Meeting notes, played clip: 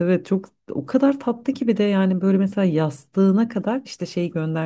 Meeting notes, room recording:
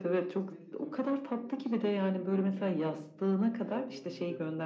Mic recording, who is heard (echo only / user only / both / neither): both